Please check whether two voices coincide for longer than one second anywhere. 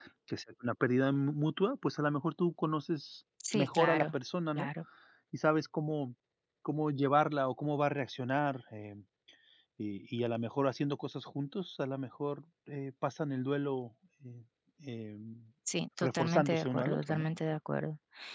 Yes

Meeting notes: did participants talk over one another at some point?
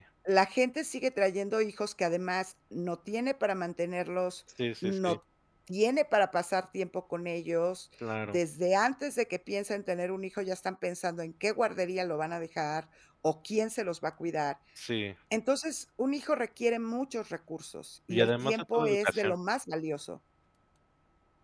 Yes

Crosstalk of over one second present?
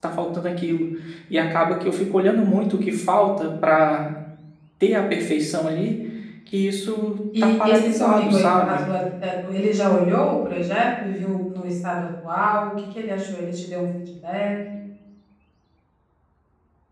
Yes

